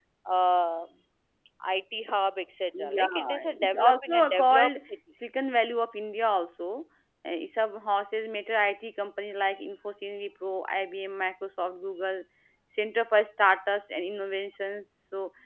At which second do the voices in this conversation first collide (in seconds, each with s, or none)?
2.7 s